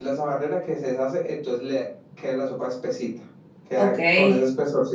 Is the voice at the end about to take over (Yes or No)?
No